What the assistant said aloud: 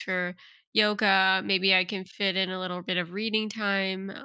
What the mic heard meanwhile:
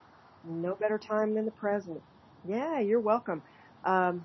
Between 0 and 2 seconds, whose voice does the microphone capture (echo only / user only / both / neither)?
user only